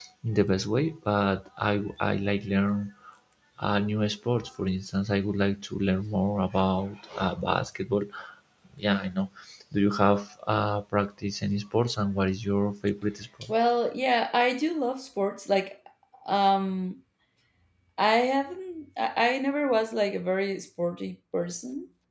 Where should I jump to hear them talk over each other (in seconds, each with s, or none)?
none